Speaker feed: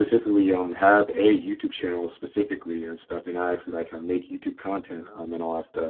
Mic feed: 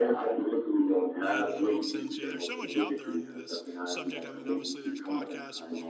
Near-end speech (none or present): present